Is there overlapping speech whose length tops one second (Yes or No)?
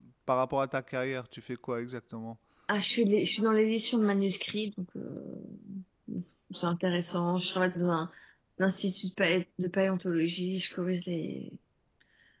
No